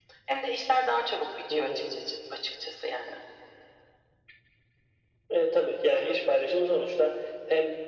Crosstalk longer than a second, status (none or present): none